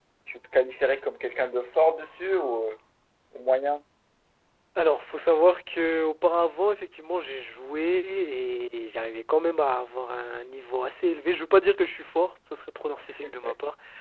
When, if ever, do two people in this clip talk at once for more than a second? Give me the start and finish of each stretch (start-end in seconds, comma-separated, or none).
none